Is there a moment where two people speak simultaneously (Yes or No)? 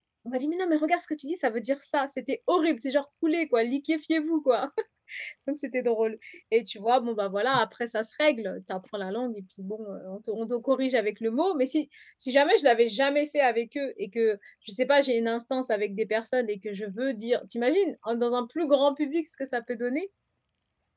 No